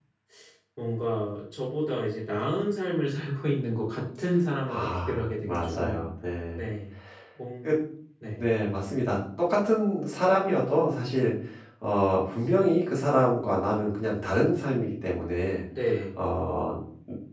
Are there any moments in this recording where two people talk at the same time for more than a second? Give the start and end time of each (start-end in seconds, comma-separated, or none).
4.7-6.1